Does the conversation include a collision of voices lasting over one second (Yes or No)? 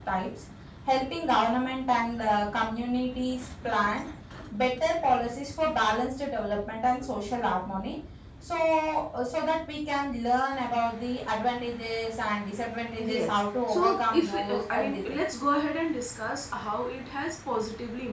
Yes